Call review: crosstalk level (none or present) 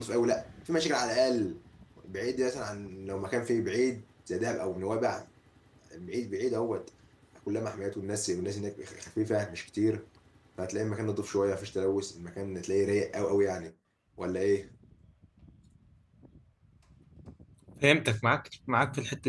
none